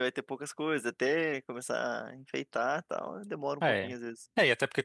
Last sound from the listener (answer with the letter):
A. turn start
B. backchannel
A